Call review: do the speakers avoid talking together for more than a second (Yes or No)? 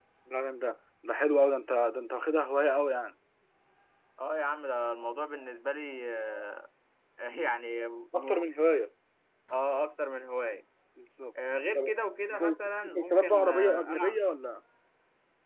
No